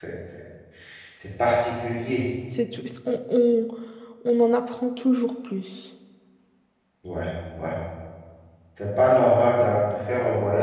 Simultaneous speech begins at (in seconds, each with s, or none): none